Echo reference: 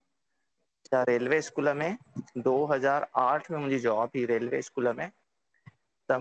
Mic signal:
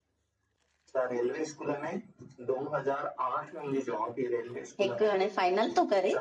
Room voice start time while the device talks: 4.8 s

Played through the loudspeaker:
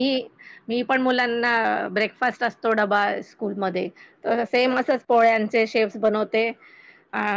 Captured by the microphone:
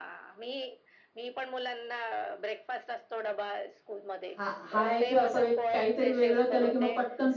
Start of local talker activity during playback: 4.4 s

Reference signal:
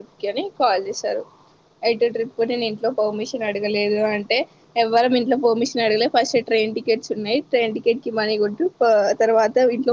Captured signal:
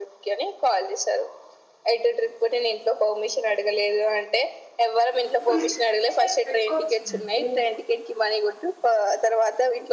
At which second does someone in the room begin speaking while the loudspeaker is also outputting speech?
5.5 s

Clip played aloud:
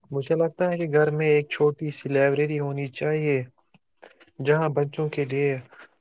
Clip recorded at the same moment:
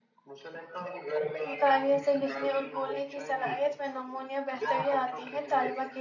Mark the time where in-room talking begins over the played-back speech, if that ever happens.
1.5 s

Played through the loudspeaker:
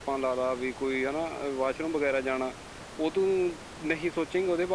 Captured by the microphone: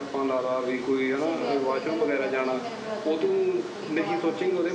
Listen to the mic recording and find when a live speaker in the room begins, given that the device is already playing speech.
1.2 s

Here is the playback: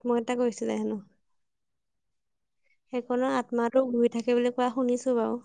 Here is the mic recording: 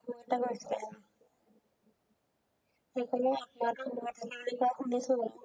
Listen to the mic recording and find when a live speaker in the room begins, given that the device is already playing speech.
none

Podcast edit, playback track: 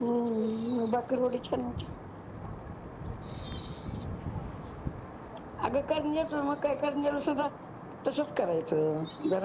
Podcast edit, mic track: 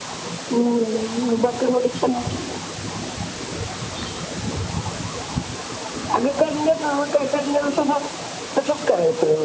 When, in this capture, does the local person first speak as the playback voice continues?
none

